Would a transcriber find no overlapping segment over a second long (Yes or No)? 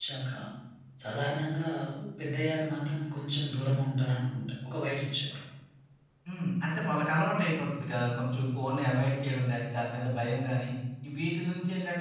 Yes